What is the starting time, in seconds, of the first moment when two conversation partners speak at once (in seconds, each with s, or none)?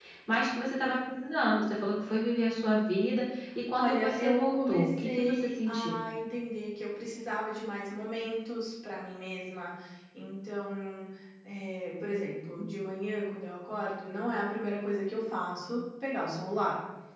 3.7 s